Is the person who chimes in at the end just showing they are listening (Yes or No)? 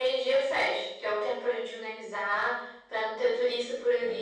Yes